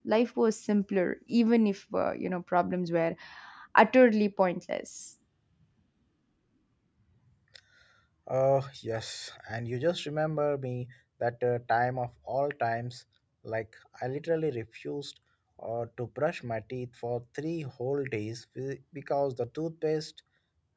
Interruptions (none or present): none